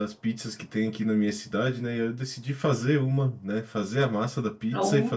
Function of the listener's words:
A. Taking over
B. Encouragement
B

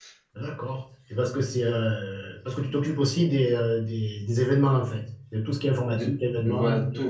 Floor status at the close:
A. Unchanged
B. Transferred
B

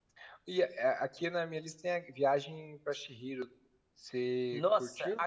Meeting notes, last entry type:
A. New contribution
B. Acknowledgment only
A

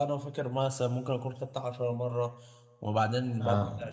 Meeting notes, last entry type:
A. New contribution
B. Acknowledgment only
B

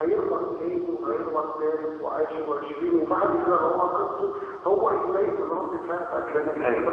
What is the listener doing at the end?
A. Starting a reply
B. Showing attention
B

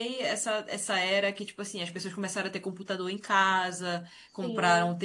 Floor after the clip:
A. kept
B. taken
A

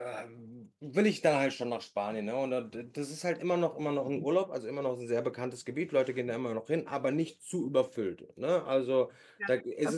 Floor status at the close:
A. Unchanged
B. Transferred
B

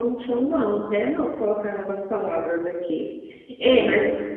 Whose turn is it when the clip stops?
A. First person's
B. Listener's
A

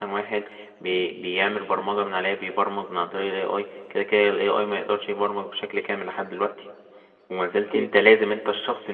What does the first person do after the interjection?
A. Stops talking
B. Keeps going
B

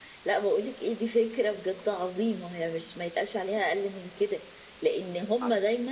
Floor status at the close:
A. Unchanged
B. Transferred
A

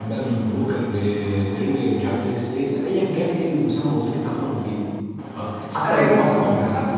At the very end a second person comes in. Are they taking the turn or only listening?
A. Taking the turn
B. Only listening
A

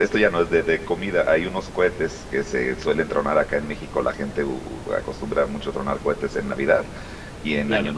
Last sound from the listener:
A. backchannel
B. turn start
A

